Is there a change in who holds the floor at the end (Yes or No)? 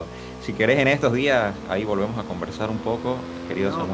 No